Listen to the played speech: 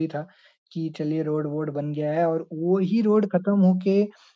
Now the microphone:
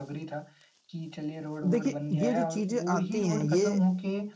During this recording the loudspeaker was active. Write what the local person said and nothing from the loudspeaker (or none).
देखिए, ये जो चीज़ें आती हैं, ये